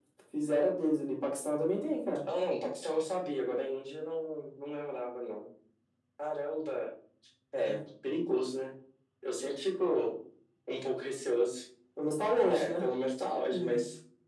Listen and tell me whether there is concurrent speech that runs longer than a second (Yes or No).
No